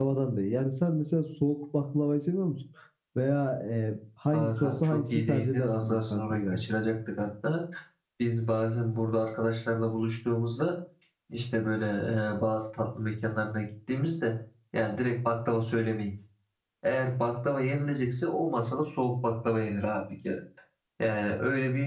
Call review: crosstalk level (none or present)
present